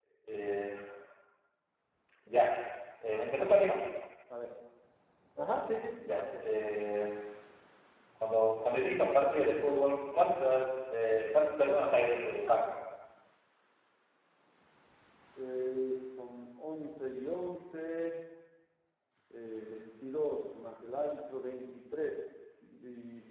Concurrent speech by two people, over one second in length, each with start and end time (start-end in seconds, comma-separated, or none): none